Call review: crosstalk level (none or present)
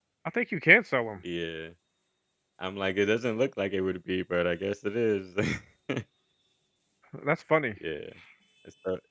none